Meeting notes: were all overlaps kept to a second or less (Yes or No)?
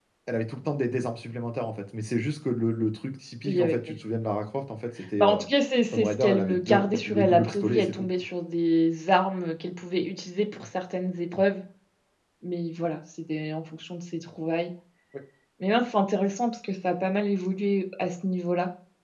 No